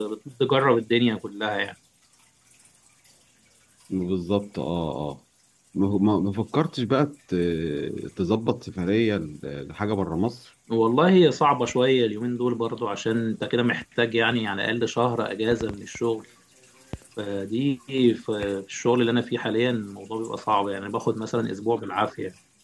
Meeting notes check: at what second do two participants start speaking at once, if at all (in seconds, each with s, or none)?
none